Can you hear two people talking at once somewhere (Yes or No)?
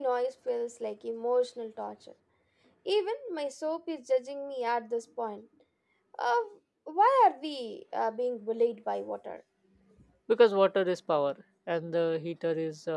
No